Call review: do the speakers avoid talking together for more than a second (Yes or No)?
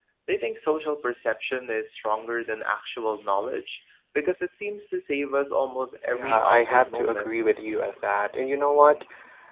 No